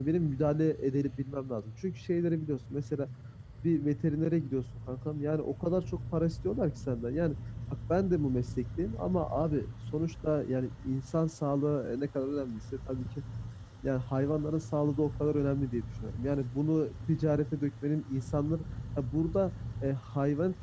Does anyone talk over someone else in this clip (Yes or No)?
No